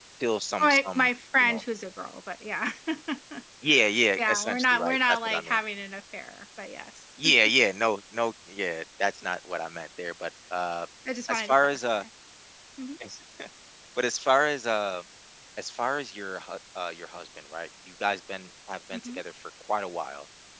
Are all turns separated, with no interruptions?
No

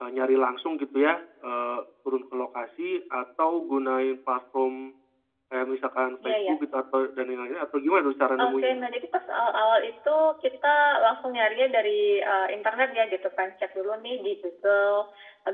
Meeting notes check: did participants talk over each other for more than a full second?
No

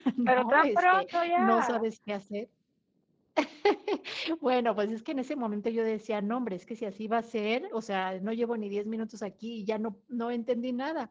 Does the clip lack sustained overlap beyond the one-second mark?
No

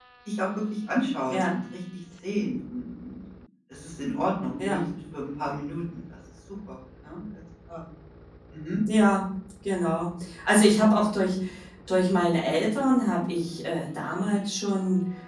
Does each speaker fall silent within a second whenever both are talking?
Yes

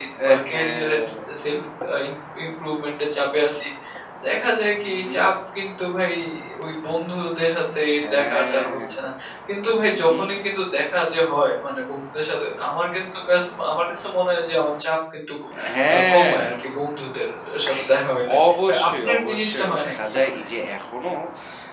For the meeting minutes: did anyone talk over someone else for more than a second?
Yes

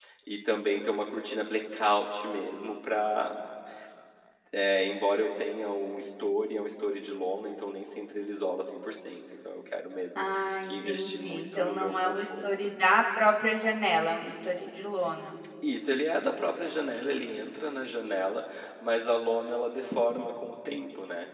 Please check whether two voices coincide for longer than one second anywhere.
Yes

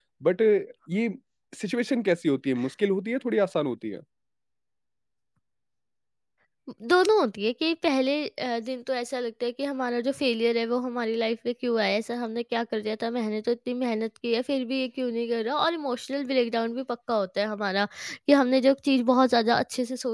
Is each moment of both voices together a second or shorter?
Yes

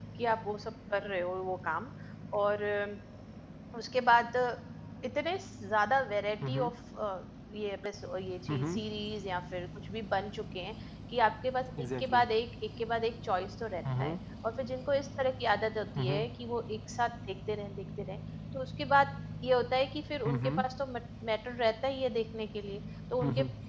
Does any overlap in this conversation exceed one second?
No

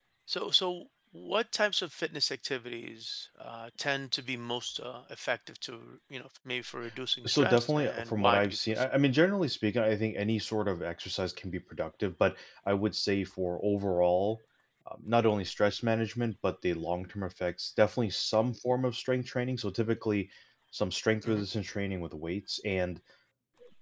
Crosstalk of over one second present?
Yes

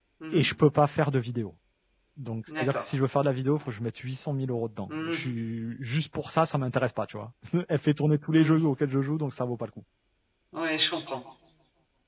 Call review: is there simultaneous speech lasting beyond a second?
No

